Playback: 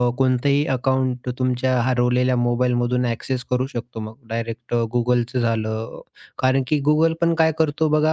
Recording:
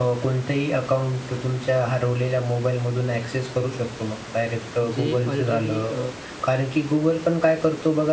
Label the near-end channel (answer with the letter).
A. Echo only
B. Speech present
B